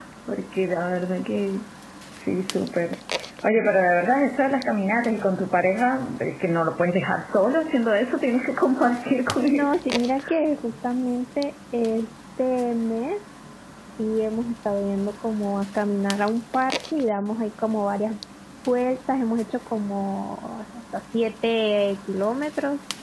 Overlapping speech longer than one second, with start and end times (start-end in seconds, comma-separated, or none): none